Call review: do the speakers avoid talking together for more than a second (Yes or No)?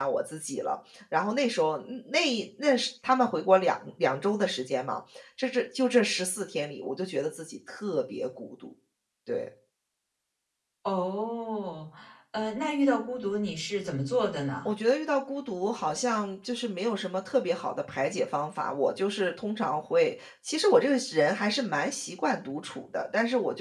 Yes